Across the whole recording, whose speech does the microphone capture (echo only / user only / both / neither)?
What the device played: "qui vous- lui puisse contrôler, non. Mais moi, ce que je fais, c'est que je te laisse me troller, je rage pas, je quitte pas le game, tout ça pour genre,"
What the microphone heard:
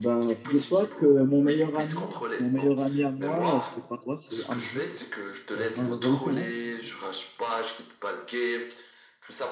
both